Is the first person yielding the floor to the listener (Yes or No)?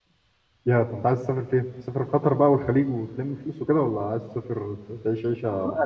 Yes